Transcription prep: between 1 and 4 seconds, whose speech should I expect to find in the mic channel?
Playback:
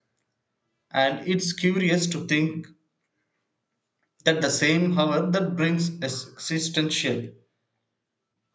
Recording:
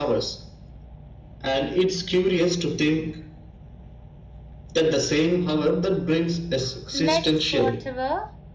echo only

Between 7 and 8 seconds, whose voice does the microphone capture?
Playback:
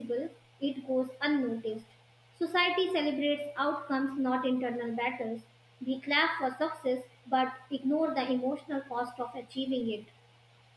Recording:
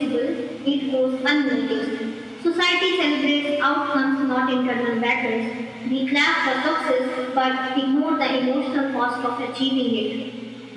echo only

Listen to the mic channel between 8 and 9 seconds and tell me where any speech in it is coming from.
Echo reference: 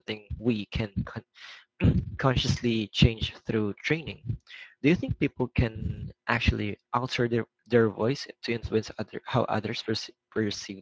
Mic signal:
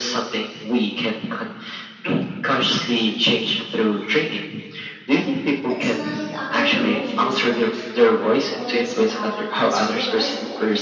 both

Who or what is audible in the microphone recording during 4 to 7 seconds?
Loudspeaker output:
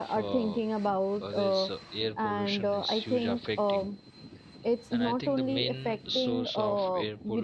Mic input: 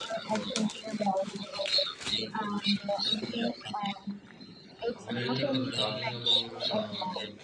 both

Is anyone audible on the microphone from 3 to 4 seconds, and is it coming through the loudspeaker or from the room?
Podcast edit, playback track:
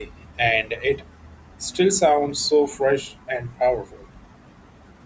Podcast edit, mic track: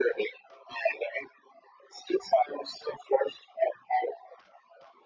echo only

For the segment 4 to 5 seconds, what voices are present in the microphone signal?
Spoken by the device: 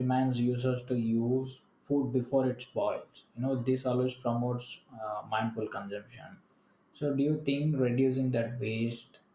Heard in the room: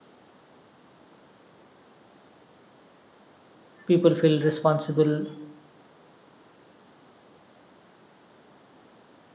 user only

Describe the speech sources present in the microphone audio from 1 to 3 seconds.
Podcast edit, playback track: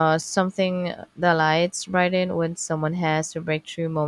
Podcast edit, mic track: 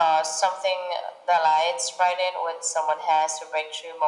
echo only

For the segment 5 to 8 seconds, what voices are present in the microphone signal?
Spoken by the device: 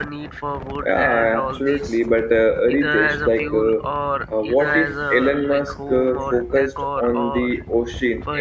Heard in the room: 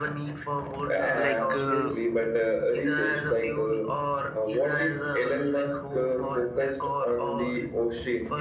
echo only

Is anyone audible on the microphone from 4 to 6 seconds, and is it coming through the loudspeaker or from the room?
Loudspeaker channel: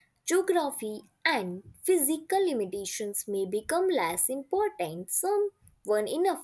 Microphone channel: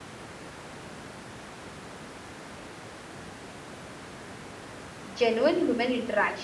user only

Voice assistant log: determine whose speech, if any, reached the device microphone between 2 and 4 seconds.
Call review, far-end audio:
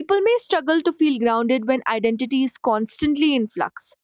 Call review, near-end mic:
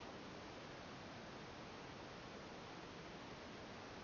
neither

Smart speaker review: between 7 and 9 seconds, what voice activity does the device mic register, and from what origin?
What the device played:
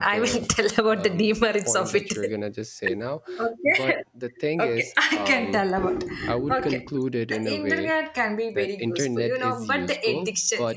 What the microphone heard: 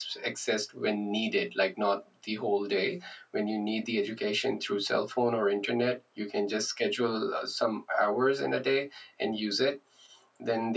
user only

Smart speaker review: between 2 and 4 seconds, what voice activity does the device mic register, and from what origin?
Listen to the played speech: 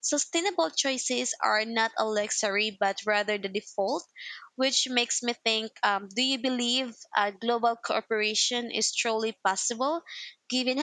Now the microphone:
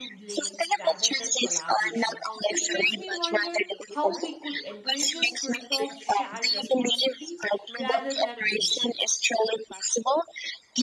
both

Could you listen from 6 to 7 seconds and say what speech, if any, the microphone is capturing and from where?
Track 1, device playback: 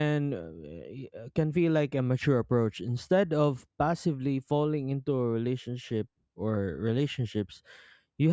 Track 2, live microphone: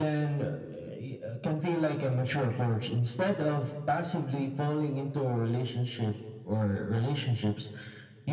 echo only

